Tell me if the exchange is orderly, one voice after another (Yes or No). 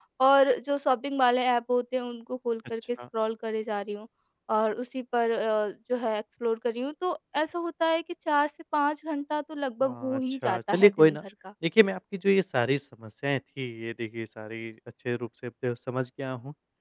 No